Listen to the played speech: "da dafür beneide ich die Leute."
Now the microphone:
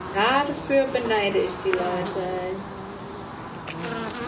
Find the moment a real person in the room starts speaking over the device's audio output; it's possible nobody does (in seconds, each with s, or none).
none